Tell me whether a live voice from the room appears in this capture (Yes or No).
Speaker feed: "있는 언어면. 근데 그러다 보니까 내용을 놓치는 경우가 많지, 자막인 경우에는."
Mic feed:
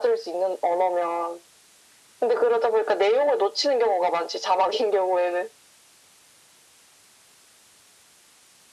No